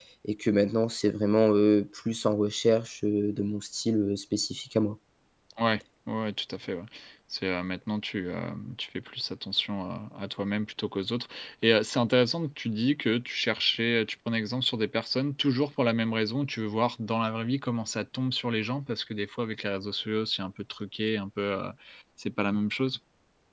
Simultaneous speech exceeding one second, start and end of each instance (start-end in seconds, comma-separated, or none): none